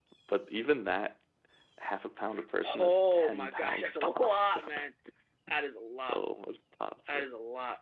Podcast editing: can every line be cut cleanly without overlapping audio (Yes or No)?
No